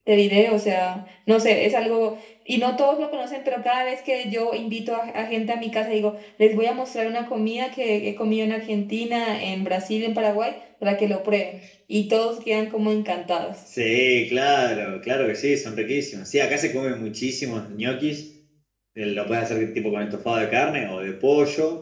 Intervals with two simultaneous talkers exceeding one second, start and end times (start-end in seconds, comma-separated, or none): none